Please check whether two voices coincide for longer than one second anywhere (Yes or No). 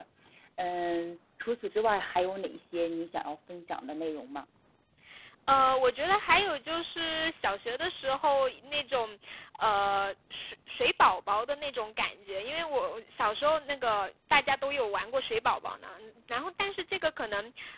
No